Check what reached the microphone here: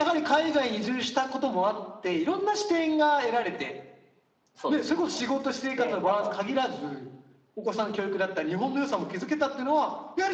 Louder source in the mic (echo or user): echo